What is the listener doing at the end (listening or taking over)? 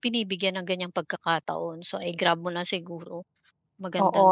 taking over